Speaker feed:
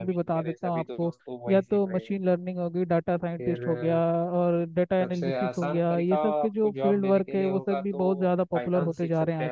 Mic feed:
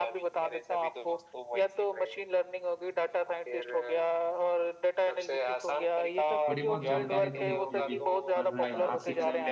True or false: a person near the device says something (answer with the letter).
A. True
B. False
A